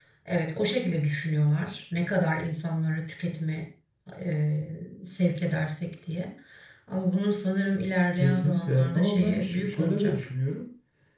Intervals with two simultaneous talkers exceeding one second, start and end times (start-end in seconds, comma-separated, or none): 8.2-10.2